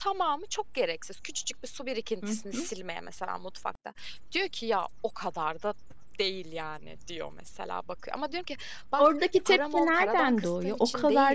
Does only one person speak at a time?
No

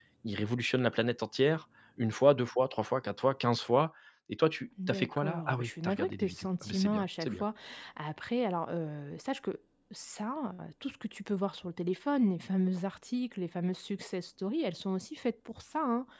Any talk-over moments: Yes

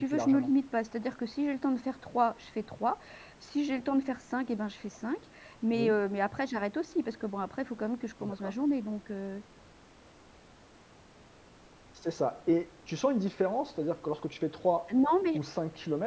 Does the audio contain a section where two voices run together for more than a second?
No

